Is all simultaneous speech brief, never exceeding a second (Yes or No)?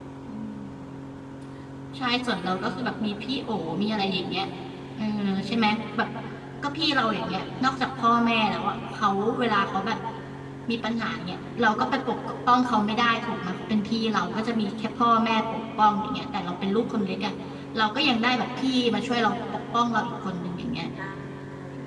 Yes